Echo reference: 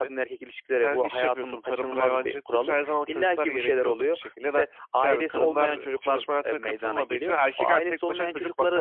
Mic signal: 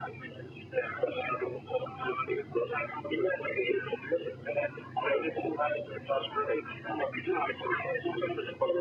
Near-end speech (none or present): none